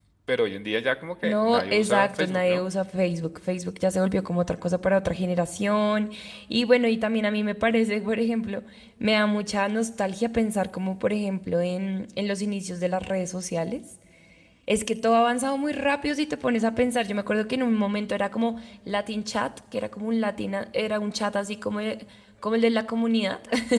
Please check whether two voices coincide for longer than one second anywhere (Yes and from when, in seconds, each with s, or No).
Yes, from 1.2 s